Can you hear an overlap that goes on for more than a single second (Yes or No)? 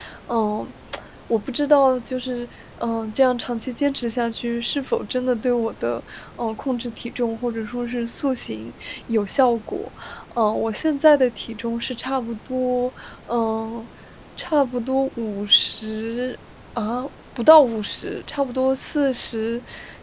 No